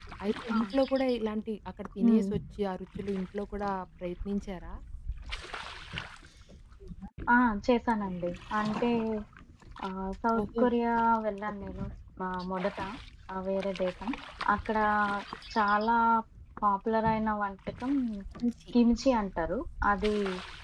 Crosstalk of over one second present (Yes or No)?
No